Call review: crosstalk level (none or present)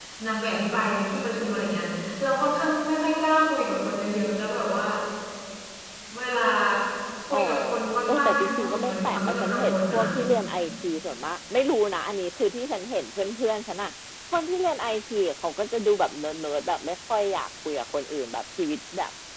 present